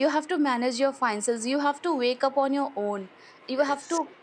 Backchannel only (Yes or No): Yes